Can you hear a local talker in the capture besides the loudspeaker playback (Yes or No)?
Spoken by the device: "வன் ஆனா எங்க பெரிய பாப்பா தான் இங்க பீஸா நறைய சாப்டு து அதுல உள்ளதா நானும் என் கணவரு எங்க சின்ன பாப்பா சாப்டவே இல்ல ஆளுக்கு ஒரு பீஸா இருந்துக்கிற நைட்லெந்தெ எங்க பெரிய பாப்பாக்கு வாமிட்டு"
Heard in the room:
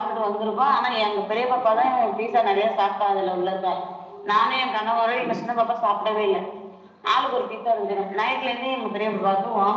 No